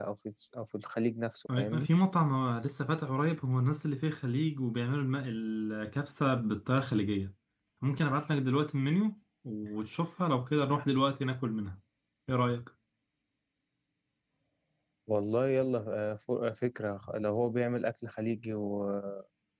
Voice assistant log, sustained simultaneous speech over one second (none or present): none